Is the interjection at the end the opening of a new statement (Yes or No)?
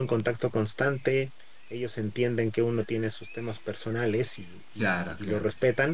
No